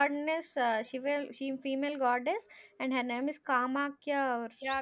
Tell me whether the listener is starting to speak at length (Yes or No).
Yes